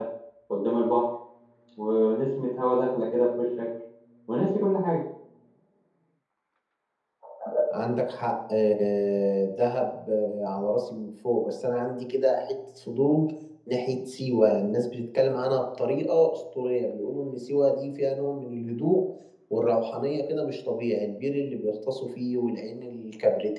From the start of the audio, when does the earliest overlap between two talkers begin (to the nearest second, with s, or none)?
none